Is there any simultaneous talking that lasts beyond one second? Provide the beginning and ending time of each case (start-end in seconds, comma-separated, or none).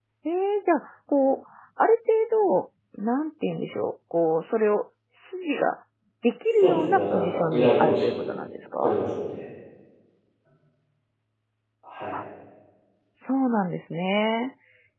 6.6-8.3